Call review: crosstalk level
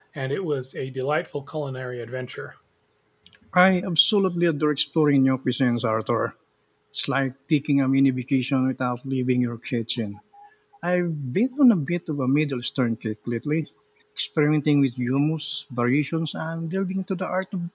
none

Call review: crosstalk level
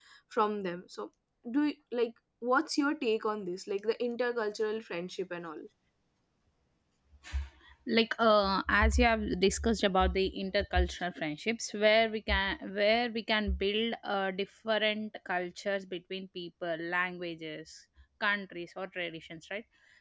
none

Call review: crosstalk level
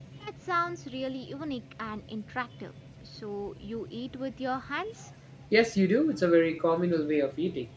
none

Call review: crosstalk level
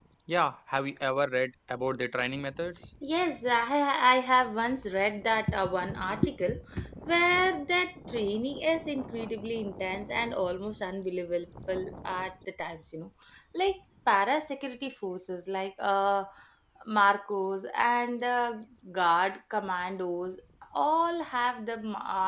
none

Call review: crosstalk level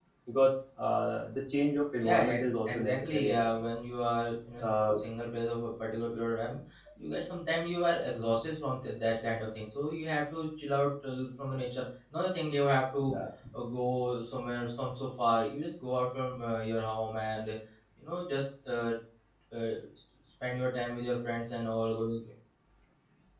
present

